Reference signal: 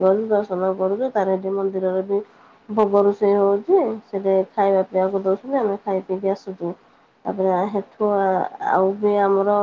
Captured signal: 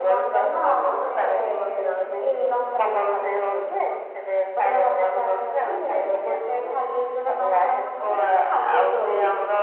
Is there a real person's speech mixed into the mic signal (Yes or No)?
Yes